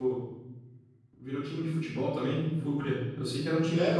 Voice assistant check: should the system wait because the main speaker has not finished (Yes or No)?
No